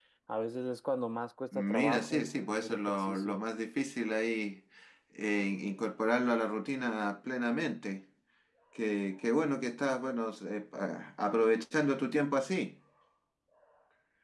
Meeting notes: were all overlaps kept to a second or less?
No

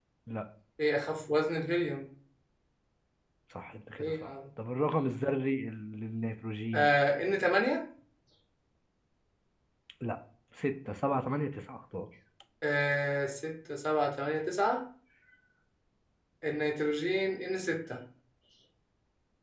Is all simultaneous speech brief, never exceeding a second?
Yes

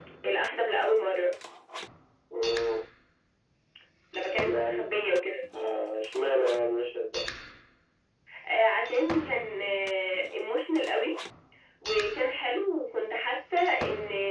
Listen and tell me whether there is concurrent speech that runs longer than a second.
No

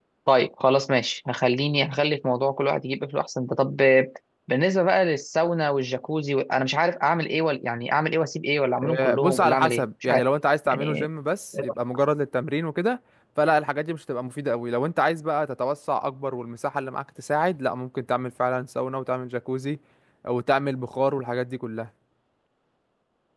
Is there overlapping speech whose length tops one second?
Yes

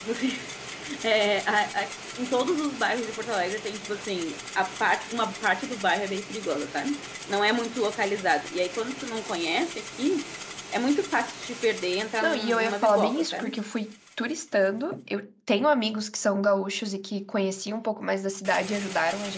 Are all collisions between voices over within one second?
No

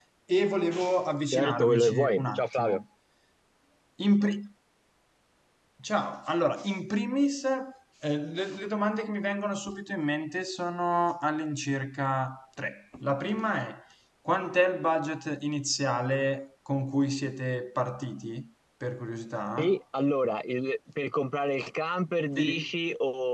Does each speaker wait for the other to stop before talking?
No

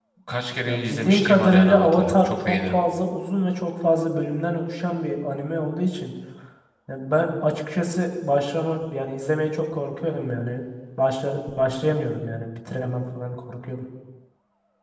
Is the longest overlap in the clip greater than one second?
Yes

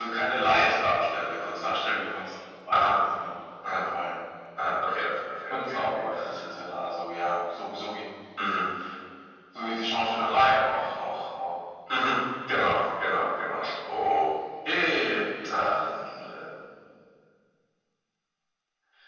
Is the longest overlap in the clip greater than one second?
No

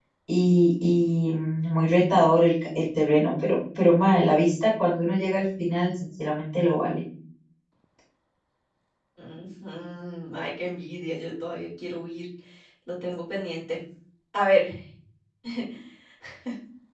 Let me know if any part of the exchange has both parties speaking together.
No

